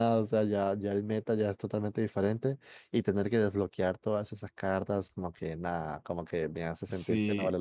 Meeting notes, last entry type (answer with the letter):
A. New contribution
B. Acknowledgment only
A